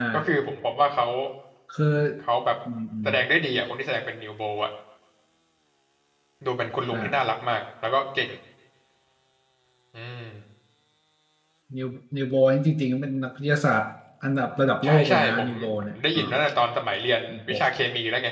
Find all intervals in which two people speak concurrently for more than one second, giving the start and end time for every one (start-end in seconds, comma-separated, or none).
14.8-16.2